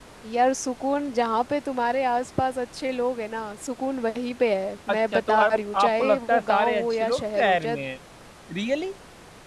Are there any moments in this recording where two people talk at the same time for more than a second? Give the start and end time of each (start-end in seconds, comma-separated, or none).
4.9-7.8